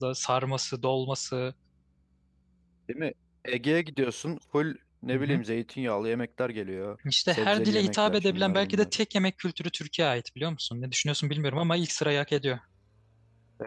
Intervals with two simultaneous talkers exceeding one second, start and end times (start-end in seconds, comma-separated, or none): 7.3-8.8